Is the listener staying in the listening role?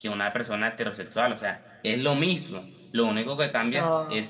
Yes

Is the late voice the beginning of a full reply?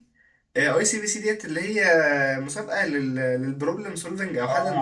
Yes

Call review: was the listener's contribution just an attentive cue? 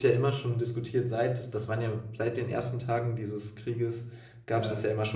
Yes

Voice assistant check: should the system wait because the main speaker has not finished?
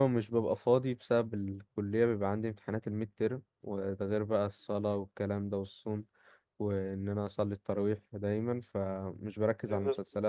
Yes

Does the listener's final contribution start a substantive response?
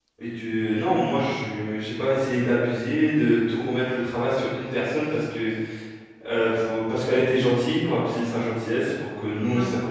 No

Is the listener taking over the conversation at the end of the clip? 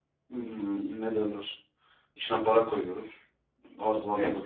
No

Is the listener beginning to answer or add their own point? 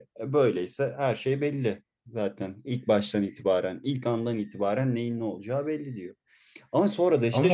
Yes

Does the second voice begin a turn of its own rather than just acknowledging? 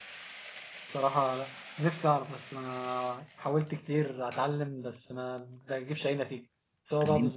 No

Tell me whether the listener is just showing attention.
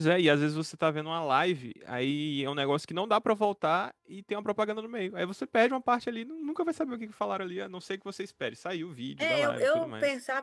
No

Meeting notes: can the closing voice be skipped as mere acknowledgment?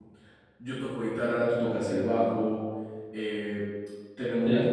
Yes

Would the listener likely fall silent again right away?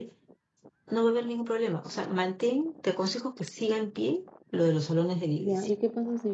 No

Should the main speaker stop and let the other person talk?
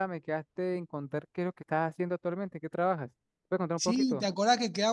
Yes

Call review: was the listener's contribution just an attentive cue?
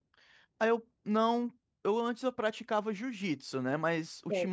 Yes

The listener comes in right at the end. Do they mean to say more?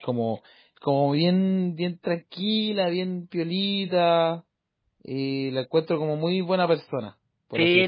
Yes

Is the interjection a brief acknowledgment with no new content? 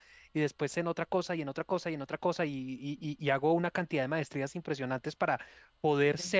Yes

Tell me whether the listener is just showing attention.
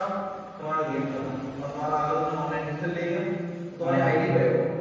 Yes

